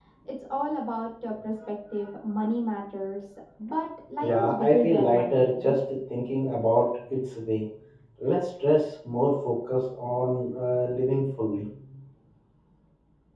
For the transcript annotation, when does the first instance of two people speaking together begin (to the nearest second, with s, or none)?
4 s